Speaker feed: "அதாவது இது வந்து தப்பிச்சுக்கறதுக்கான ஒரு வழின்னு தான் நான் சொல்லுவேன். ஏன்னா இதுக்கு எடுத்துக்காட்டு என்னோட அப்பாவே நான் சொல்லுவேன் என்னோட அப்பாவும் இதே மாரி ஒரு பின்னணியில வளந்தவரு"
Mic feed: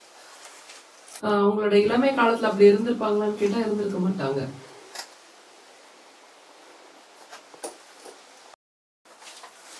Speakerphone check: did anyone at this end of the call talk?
Yes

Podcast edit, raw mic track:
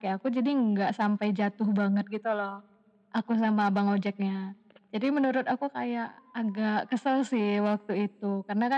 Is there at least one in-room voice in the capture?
No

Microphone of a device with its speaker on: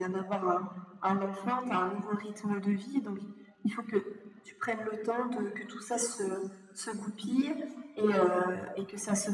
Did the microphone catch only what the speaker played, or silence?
Yes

